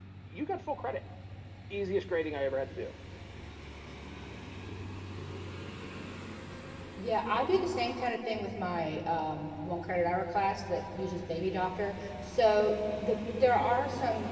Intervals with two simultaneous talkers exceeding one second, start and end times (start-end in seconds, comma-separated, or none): none